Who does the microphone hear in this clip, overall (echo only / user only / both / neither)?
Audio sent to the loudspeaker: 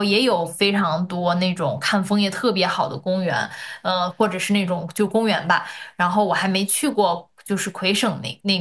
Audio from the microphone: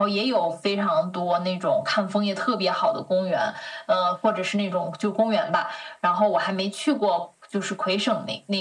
echo only